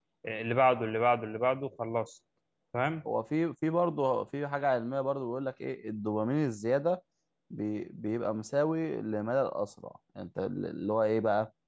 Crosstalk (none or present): none